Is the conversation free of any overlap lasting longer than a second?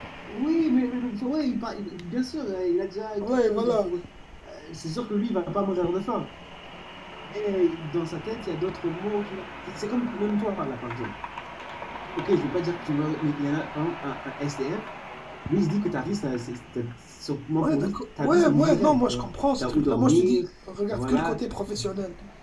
No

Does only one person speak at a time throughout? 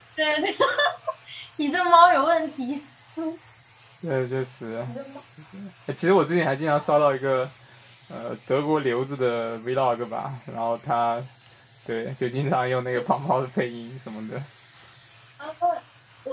Yes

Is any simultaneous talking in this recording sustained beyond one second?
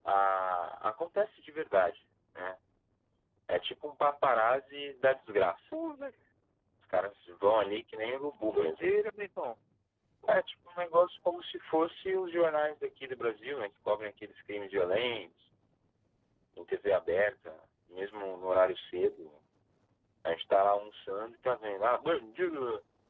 No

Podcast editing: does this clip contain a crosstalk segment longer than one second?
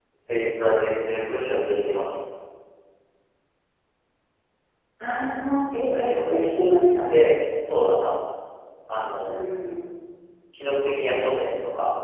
No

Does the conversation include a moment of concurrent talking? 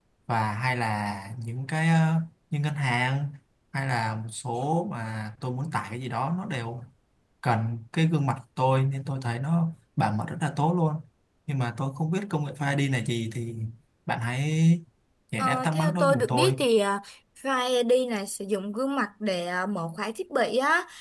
Yes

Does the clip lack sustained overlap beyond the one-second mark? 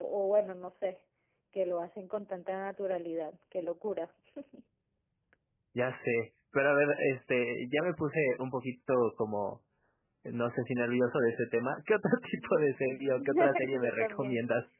No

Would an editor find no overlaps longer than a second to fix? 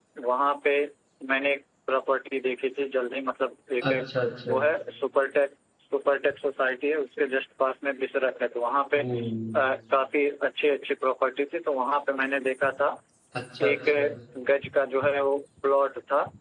Yes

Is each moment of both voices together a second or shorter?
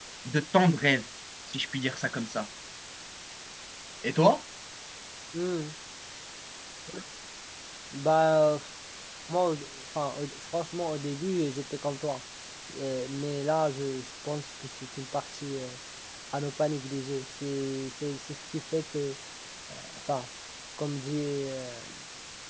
Yes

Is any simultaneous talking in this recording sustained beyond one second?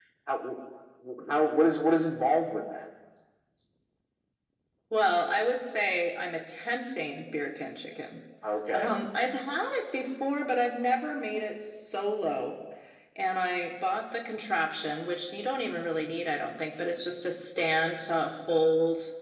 No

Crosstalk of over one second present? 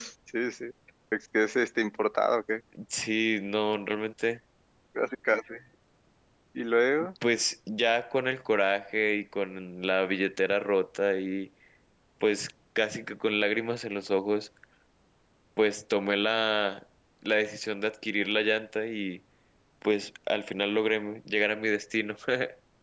No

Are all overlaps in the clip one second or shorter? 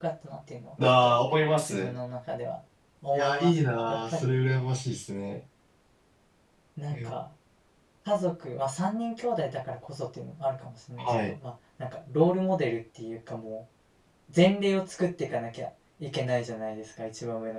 No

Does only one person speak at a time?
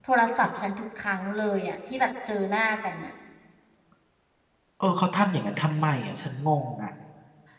Yes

